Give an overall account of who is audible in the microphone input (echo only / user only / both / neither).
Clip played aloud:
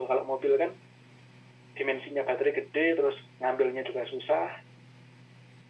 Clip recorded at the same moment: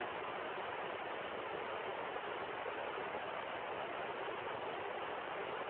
neither